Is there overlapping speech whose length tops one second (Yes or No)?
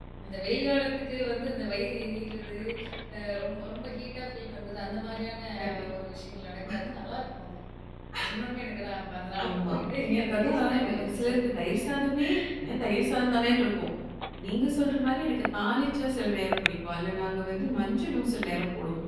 Yes